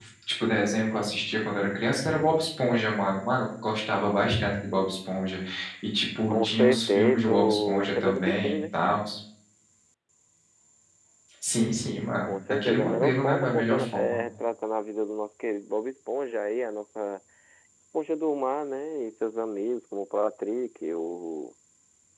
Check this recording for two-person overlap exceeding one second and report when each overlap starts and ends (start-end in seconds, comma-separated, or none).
6.3-8.5, 12.2-14.2